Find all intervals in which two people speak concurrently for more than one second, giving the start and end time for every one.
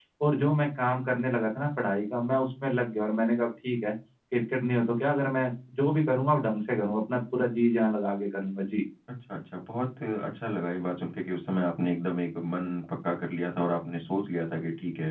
none

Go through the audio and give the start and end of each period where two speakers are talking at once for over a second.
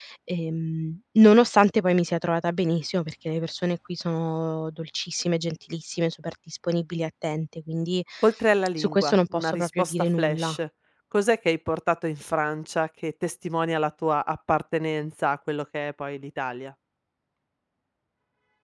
8.8-10.6

